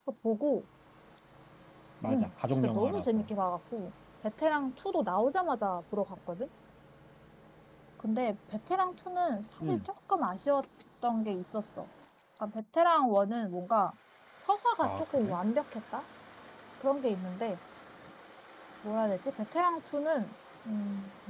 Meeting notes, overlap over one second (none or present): present